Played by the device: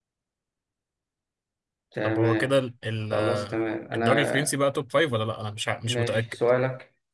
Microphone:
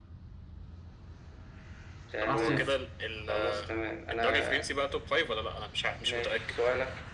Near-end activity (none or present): present